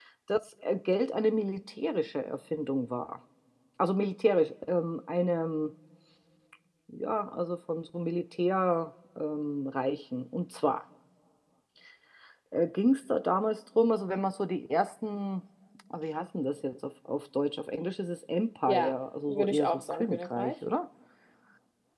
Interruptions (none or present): present